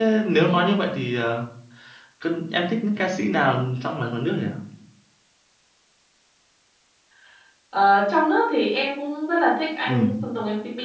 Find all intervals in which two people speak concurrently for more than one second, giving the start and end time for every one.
none

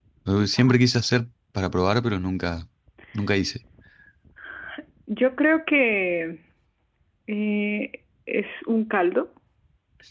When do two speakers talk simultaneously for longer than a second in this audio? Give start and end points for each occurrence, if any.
none

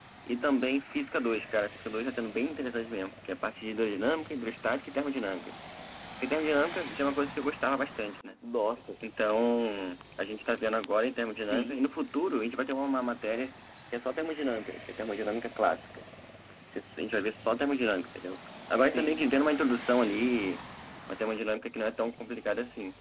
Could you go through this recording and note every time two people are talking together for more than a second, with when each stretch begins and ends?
none

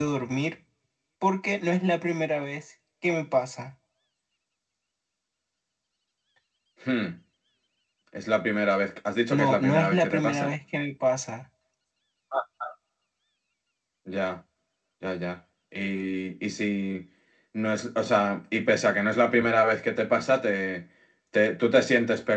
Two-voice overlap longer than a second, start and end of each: 9.3-10.5

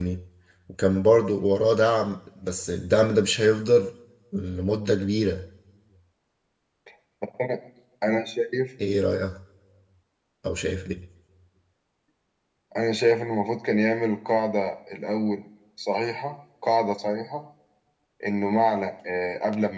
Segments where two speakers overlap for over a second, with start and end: none

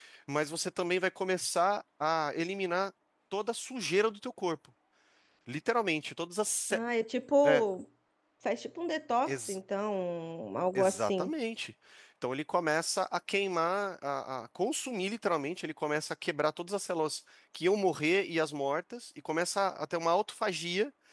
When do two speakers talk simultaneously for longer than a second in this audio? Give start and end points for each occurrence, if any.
none

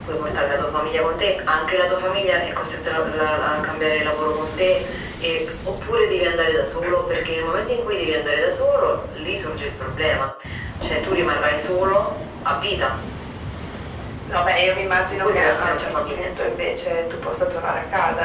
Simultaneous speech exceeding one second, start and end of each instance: 15.1-16.3

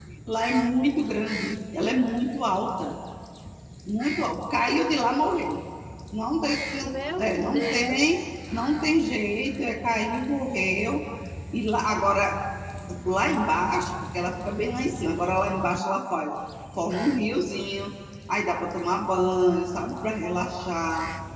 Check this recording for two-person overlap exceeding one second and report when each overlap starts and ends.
6.8-8.2

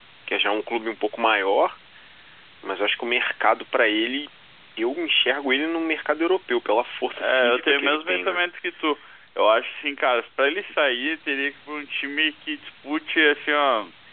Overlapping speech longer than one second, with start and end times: 7.2-8.4

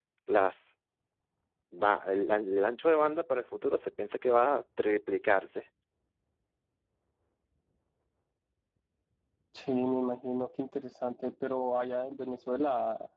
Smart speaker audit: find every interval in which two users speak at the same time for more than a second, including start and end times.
none

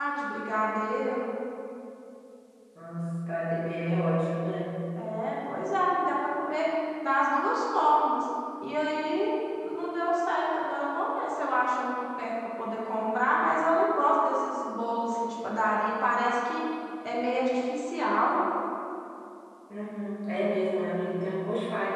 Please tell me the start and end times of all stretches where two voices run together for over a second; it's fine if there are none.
none

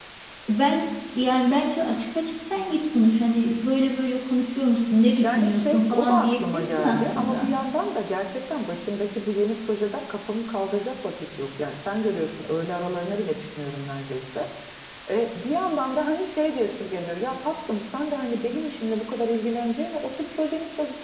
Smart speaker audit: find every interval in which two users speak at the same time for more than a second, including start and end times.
5.2-7.5

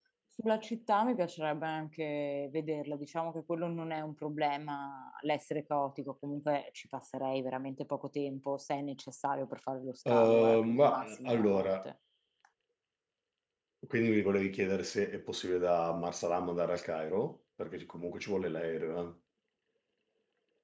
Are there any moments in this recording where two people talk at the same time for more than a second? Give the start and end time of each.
10.1-11.9

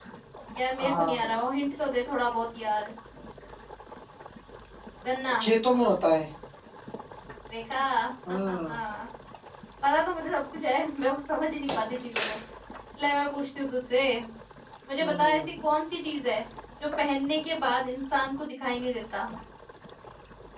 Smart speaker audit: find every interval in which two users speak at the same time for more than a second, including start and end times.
none

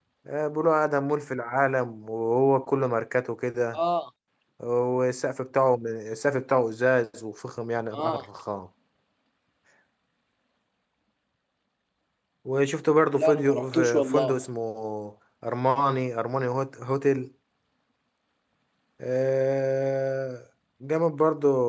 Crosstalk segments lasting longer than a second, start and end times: 13.2-14.4

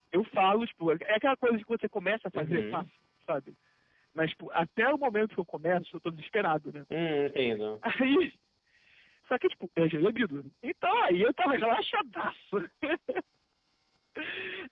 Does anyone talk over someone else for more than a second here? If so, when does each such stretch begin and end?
none

